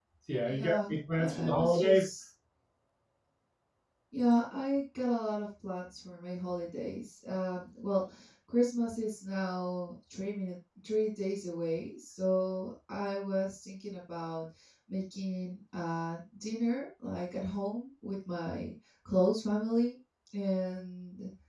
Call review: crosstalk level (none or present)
present